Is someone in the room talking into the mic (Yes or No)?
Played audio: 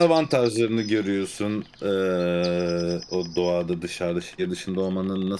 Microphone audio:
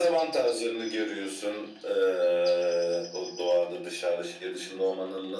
No